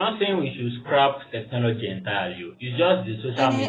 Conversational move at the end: taking over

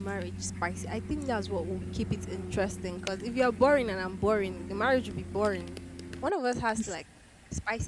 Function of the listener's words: listening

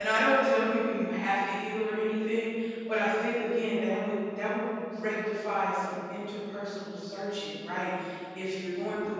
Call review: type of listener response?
listening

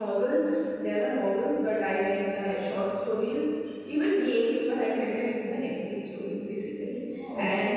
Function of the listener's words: listening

